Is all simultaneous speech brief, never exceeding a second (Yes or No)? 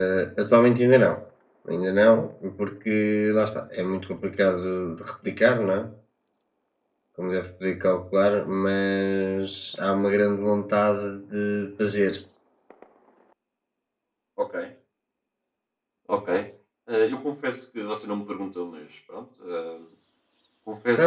Yes